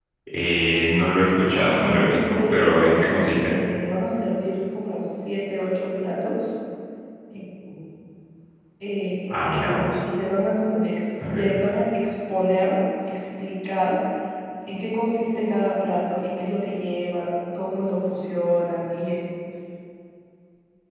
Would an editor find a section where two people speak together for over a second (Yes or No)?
Yes